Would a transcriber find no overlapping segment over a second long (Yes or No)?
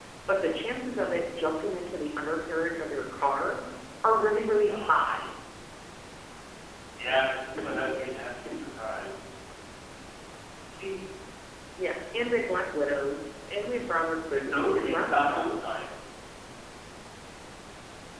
No